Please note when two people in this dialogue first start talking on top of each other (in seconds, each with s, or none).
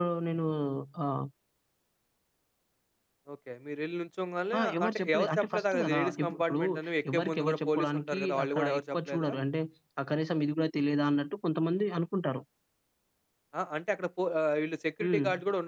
4.6 s